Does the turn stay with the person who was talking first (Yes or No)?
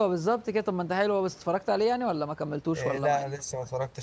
No